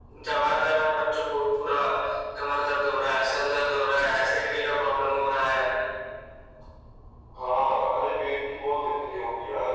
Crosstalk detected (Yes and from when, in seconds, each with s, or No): No